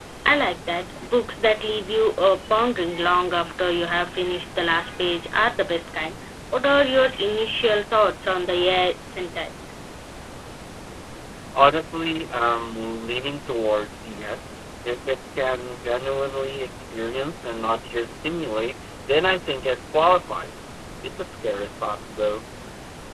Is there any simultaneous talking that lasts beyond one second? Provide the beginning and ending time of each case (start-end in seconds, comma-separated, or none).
none